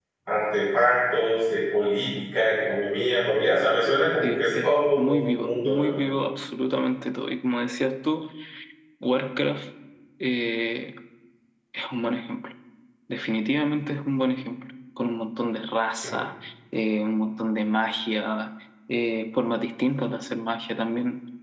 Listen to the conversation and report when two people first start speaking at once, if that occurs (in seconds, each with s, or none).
4.2 s